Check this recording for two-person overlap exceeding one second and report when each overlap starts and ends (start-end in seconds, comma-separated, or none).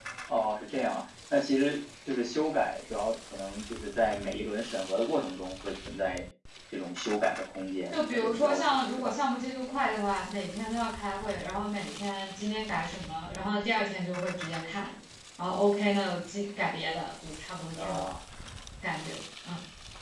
7.9-9.2